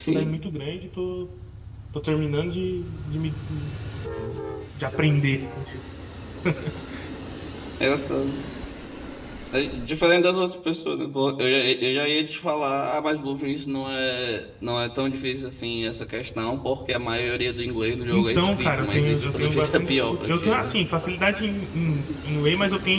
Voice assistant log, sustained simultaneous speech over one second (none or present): present